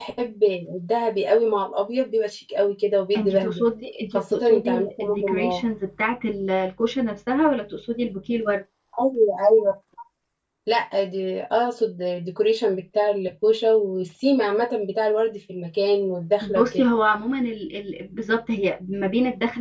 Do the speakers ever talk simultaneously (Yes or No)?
Yes